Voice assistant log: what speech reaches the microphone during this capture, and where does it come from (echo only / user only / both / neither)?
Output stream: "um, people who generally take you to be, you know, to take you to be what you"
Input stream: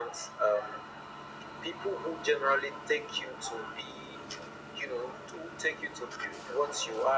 echo only